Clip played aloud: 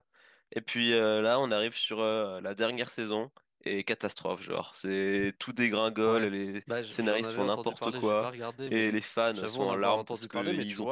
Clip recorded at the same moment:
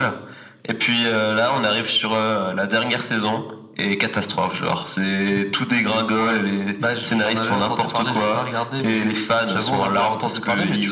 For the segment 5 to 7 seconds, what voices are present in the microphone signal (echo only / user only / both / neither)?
echo only